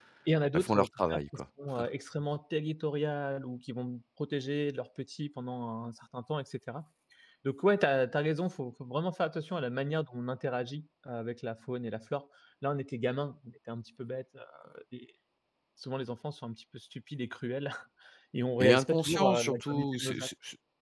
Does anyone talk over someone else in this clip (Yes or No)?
Yes